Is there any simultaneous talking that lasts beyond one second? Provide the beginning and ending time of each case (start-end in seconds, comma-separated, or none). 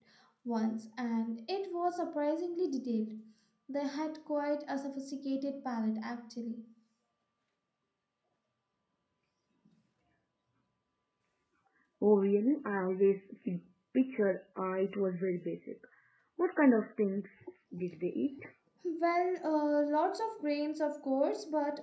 none